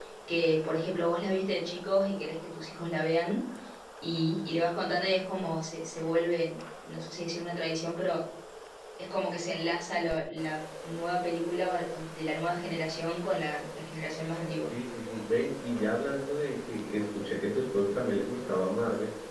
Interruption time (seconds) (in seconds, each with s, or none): none